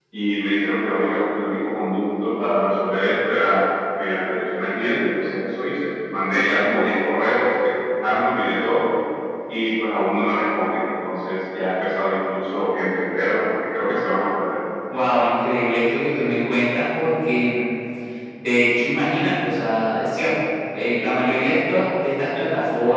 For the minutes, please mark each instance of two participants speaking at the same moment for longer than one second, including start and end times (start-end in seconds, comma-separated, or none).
none